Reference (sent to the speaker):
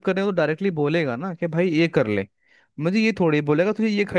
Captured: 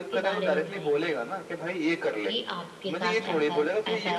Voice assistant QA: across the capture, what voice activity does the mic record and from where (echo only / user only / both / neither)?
both